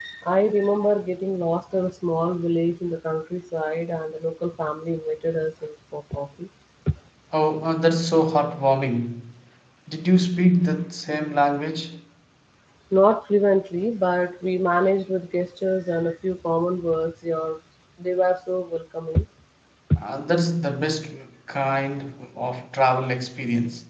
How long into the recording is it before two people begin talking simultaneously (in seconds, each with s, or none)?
none